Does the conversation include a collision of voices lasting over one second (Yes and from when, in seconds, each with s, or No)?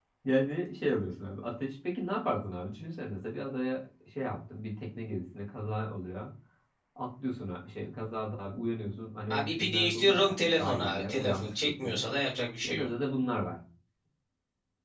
Yes, from 9.3 s